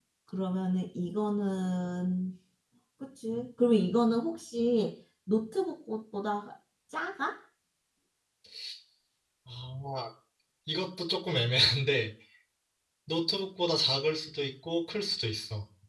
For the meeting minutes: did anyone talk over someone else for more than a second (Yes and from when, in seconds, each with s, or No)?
No